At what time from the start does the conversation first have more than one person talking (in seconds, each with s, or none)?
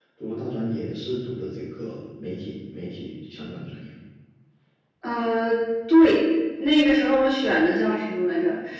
none